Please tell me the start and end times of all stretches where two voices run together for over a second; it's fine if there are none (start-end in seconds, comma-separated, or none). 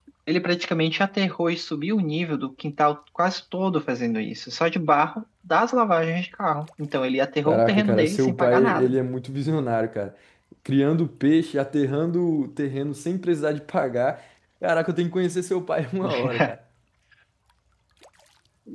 7.5-9.0